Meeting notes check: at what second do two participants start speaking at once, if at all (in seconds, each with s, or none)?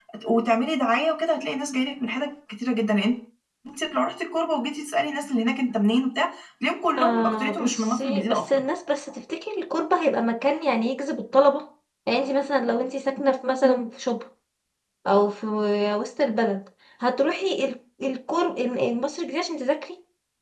7.0 s